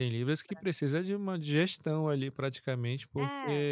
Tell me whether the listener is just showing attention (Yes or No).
Yes